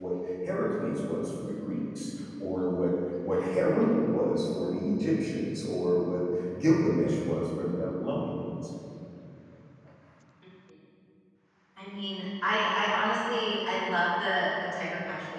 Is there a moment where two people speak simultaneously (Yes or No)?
No